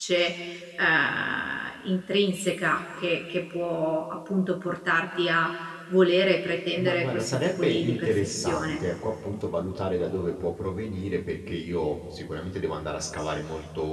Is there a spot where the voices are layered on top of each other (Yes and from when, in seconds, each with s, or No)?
Yes, from 6.8 s